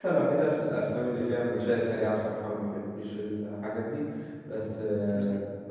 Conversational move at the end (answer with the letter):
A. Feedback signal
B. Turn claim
A